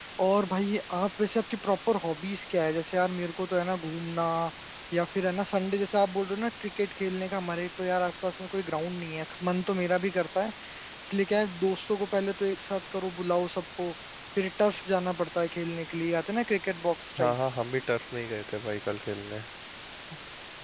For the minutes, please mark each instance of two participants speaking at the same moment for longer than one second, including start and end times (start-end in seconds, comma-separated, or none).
none